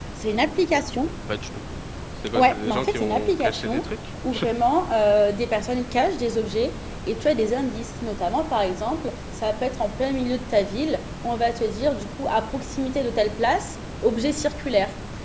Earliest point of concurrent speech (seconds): 2.4 s

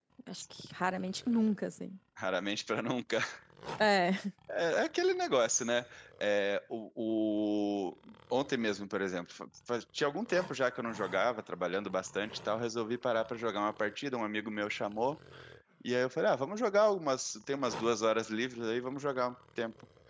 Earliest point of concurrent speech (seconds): none

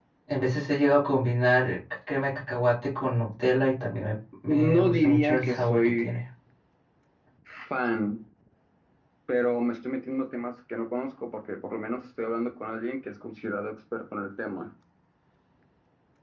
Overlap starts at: 4.5 s

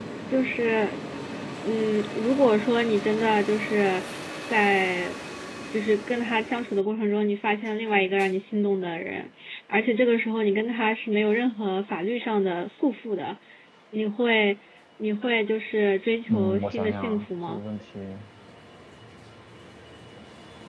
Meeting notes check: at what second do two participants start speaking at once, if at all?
16.3 s

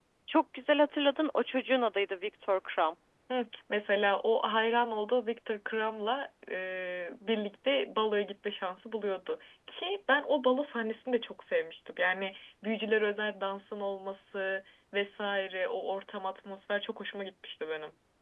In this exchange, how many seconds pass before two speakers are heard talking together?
none

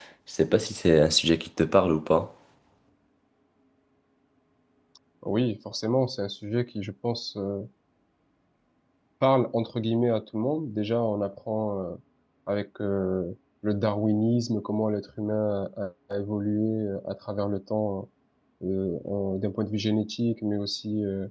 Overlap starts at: none

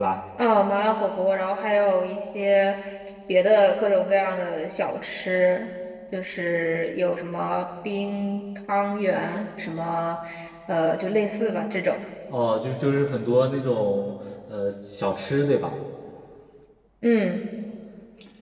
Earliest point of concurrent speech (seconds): none

